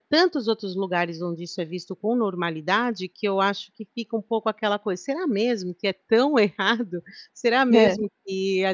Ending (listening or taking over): listening